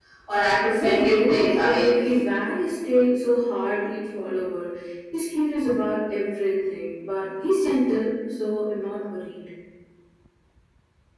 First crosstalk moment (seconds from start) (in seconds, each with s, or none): 0.5 s